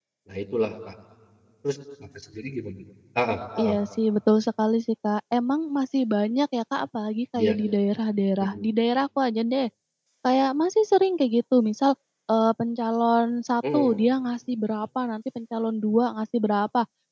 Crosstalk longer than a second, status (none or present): none